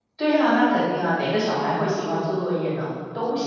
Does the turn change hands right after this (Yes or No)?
Yes